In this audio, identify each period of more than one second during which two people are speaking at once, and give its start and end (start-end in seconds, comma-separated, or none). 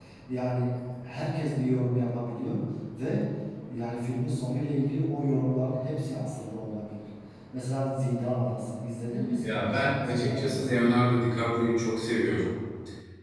9.4-10.8